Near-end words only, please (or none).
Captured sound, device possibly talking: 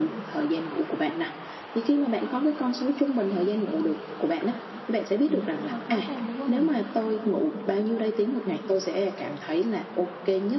thì nó cũng hơi khó khăn đối với mình.